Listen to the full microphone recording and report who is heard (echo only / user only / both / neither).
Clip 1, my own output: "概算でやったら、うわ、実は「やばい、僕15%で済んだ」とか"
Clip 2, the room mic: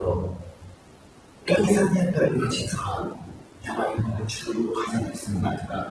echo only